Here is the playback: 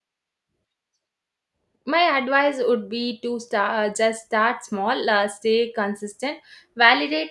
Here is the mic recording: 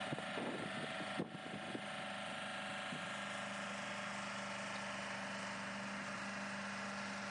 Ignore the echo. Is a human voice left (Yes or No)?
No